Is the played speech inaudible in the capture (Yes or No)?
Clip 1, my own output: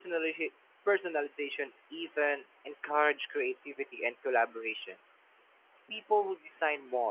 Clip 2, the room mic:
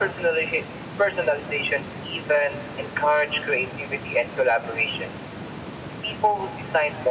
No